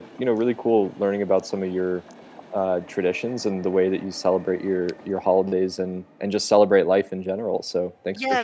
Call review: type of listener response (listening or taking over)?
taking over